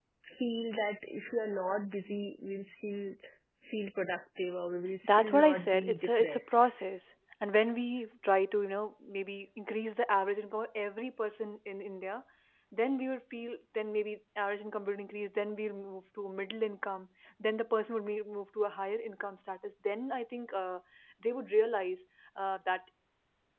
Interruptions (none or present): present